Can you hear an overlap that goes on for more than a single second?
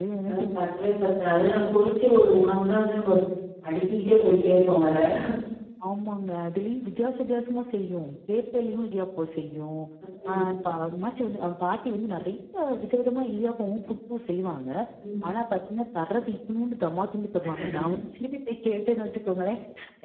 No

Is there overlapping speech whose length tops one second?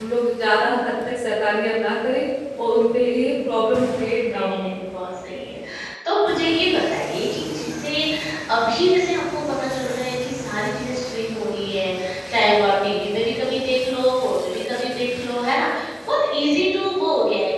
Yes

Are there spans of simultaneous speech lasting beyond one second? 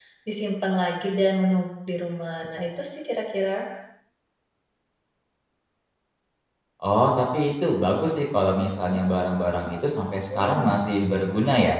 No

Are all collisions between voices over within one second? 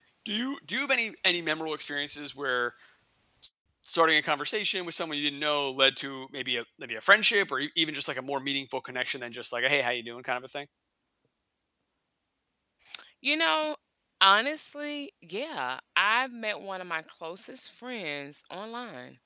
Yes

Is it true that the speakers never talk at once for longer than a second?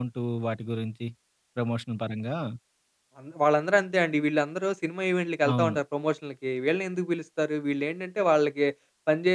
Yes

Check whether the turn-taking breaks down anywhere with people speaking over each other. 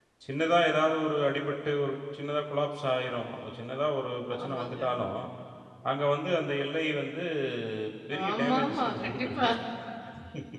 Yes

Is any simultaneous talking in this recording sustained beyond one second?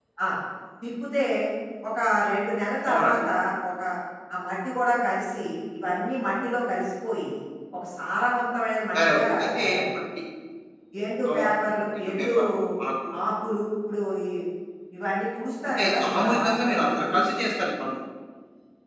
Yes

